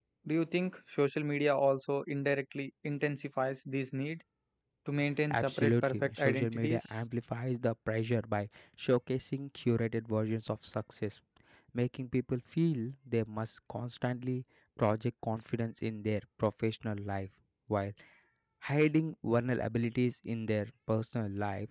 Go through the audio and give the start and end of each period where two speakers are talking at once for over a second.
5.3-7.0

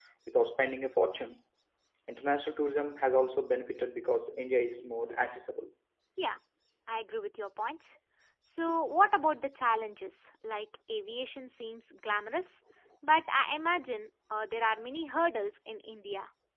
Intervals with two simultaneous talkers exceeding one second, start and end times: none

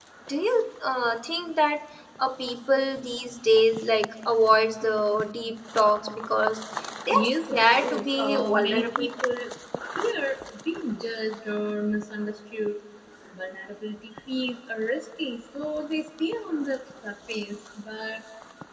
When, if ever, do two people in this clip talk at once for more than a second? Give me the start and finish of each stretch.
7.1-9.1

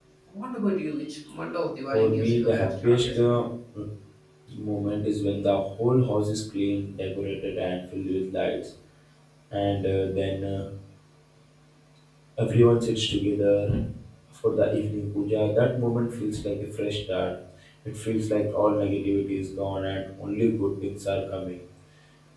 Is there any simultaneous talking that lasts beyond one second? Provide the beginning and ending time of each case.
1.9-3.4

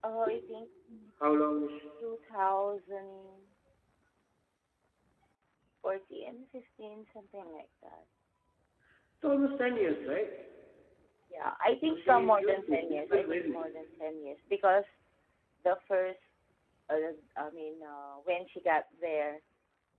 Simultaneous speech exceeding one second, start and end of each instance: 11.8-13.6

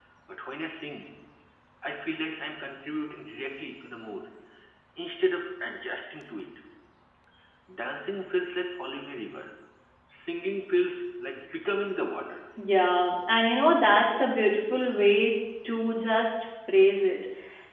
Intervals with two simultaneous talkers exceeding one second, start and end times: none

